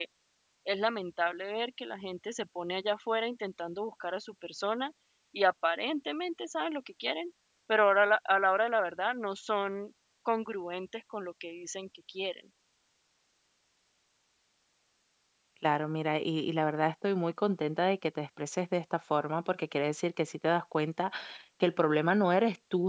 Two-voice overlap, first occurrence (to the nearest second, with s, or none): none